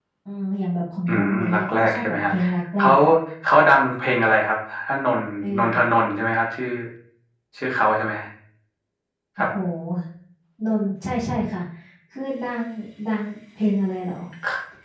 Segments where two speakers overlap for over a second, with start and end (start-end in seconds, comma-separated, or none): 1.1-2.3